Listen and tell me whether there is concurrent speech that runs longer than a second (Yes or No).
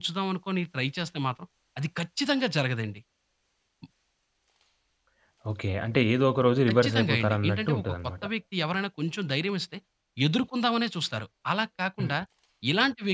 Yes